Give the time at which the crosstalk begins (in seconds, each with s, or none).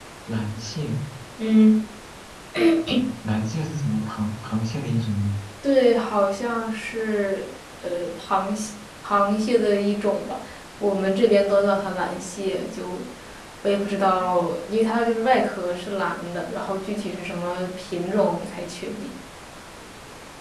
none